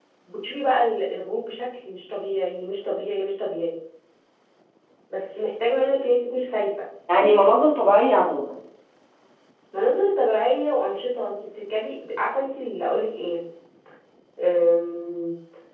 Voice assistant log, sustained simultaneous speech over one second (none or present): none